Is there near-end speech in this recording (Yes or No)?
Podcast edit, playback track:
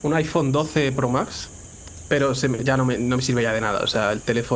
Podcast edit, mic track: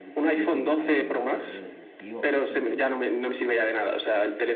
Yes